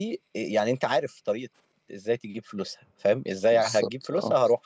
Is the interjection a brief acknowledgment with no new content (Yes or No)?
Yes